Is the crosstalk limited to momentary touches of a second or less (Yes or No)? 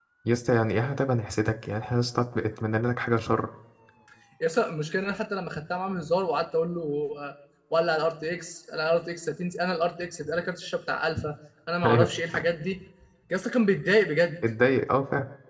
Yes